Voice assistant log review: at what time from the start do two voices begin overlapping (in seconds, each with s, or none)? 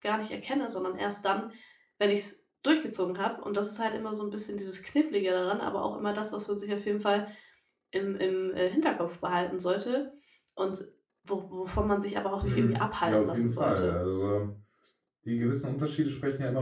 12.4 s